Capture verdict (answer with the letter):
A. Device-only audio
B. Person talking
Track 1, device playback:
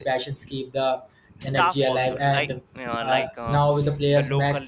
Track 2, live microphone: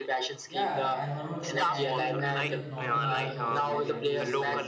B